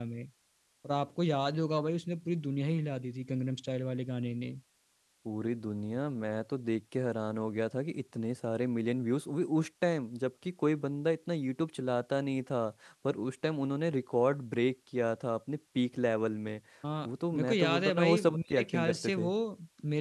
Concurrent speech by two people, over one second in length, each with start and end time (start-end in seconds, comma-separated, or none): 17.1-19.3